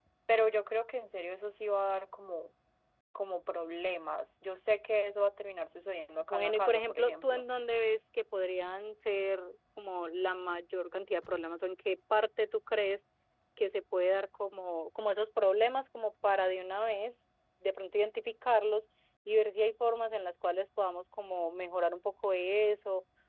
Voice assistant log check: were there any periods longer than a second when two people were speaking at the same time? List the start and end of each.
6.2-7.5

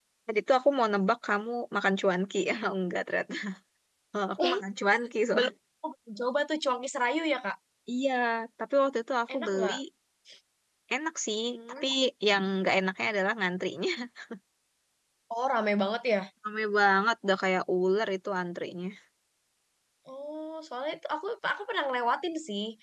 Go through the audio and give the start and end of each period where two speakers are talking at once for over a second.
none

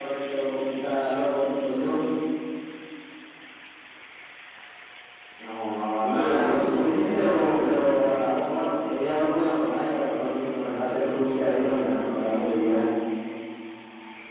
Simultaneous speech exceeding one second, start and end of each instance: 6.0-7.8

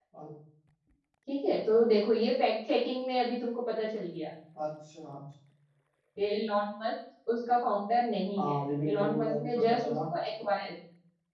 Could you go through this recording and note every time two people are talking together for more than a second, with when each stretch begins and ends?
8.4-9.9

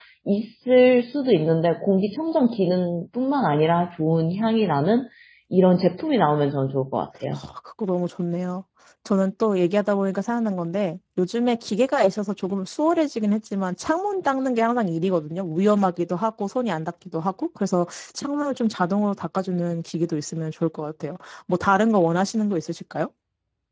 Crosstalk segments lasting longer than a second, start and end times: none

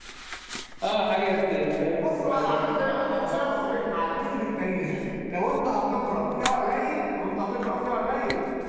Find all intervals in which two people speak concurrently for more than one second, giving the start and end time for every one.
2.0-3.4

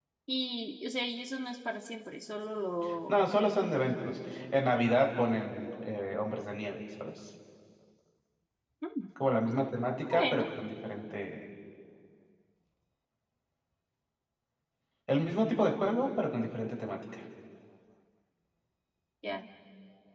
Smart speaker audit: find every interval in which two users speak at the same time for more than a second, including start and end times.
none

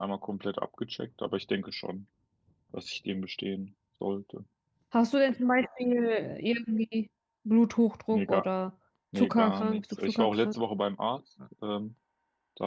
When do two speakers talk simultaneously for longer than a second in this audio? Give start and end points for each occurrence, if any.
9.2-10.6

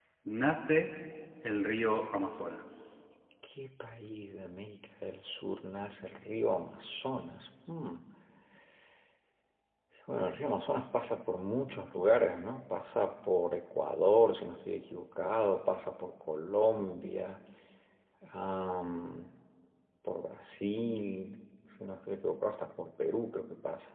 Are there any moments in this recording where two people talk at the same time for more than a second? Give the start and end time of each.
none

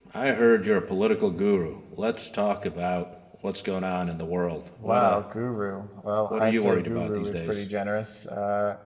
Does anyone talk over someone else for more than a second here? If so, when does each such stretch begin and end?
6.3-7.7

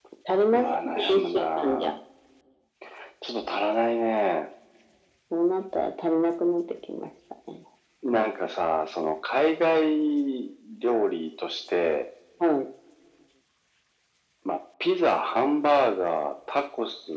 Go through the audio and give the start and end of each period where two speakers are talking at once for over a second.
0.5-2.0

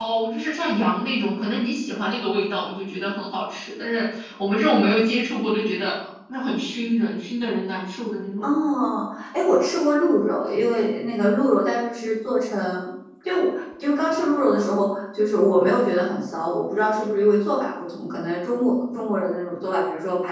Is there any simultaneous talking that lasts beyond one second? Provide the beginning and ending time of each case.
none

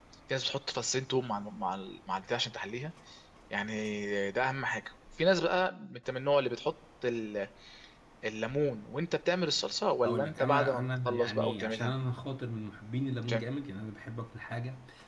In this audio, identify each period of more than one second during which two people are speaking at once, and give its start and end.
10.0-12.0

